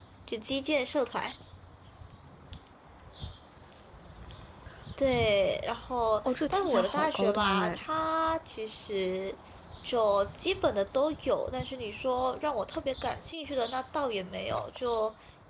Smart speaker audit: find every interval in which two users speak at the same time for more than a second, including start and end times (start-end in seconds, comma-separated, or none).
6.2-7.8